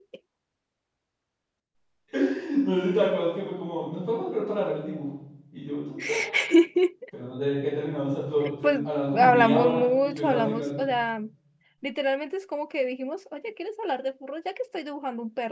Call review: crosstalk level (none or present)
present